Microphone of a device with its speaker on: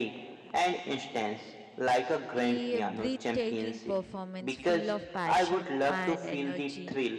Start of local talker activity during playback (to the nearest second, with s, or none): 2 s